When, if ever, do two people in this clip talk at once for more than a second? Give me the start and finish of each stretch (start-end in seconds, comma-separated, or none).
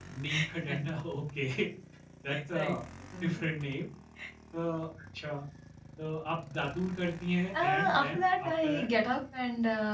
7.5-8.9